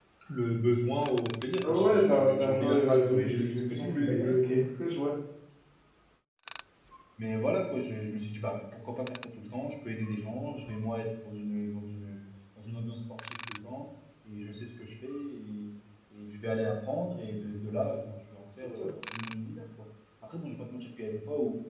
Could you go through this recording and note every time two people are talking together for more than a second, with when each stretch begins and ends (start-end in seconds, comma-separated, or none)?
1.6-4.5